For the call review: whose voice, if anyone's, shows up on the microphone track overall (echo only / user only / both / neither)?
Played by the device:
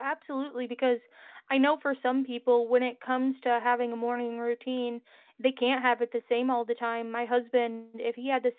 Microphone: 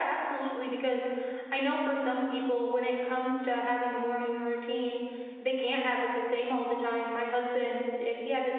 echo only